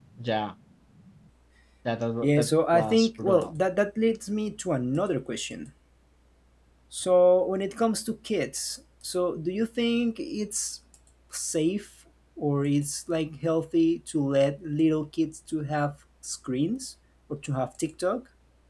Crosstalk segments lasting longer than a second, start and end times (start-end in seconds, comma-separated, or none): 2.2-3.5